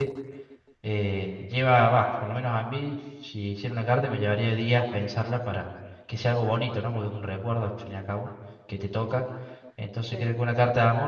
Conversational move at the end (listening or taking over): listening